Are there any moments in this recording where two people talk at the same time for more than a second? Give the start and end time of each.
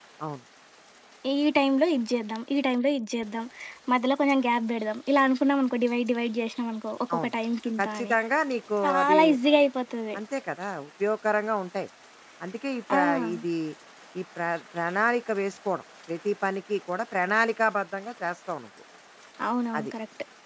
none

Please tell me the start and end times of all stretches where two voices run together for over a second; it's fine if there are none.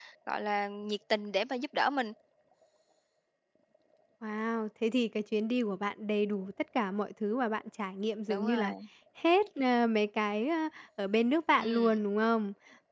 none

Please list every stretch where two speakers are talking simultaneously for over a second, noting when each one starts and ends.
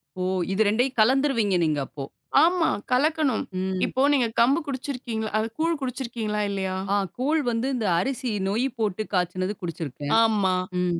none

